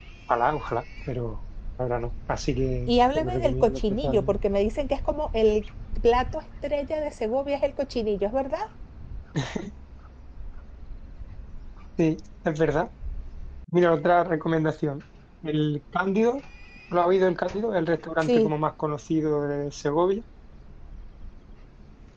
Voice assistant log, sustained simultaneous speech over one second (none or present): present